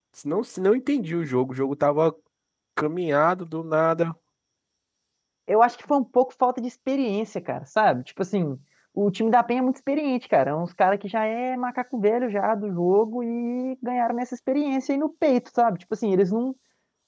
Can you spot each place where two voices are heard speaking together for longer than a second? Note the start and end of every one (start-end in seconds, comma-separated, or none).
none